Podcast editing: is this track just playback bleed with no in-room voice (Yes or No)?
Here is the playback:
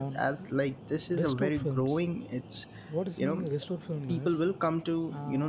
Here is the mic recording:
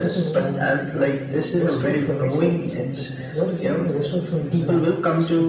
No